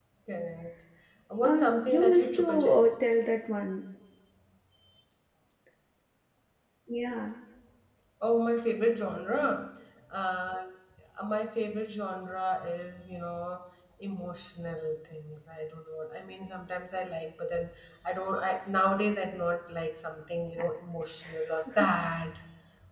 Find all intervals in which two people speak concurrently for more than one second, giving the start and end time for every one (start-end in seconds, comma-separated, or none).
1.4-2.9